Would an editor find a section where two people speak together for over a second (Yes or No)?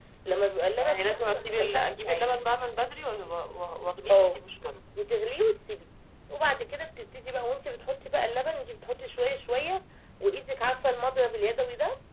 Yes